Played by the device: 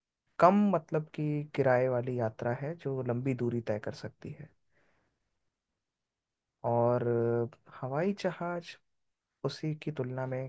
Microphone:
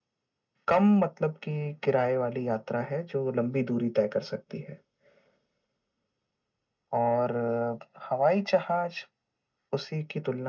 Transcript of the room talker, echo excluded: none

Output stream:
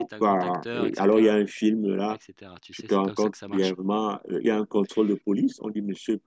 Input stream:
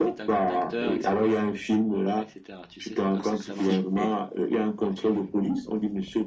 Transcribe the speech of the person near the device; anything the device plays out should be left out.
Alors ce film est

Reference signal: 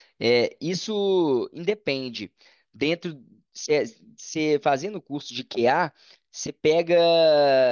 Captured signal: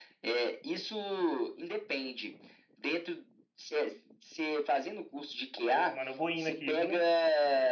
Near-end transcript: pô, mano, eu vou indo aqui, viu?

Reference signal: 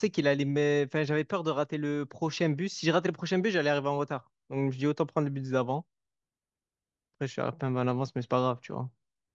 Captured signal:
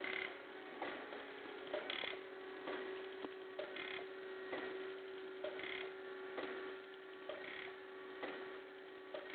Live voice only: none

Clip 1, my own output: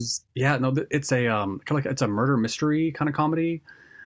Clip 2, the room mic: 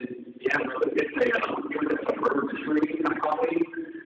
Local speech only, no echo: none

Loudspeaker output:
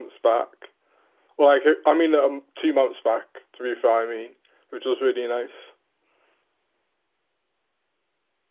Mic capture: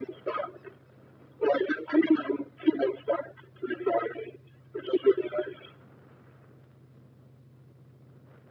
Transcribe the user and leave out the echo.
none

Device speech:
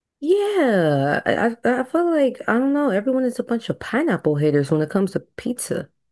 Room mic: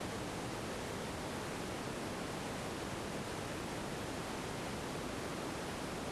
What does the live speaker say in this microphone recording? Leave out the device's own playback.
none

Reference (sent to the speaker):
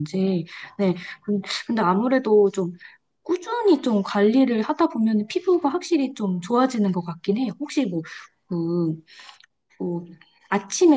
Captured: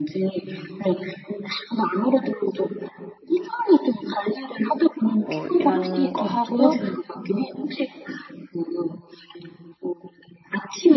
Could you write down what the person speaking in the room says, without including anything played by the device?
뭐 이런 거 하고

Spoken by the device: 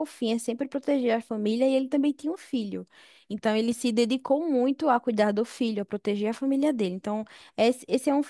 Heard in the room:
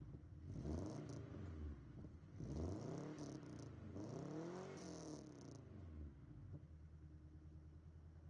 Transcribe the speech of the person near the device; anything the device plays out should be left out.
none

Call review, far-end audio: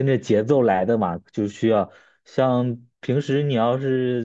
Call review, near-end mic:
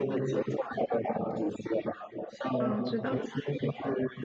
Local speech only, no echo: 啊，我知道，

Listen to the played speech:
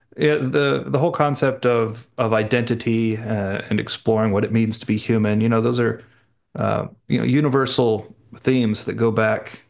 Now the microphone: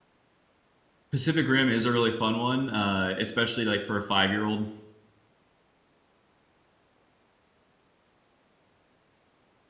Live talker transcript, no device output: Pacific Rim is a really fun one, uh, especially like for a five-year-old.

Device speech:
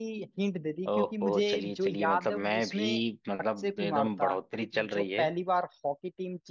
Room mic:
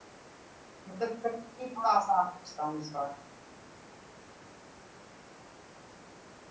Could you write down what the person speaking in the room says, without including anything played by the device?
मतलब कठिन ही थोड़ा आसान पूछता हूँ इस बार

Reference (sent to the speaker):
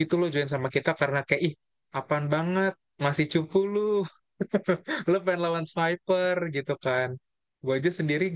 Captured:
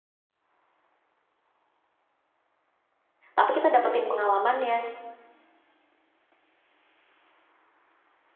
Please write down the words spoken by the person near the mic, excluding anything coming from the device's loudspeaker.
tapi kita dapetin pengalamannya.

